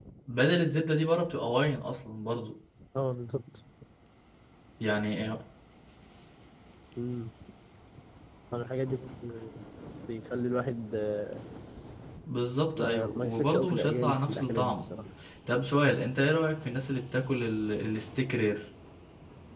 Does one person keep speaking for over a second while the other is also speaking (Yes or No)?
Yes